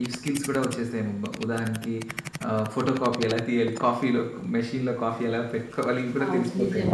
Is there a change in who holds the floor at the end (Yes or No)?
Yes